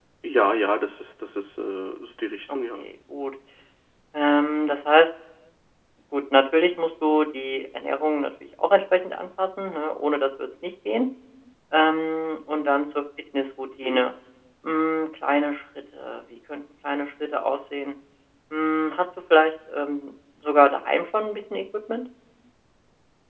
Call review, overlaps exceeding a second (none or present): none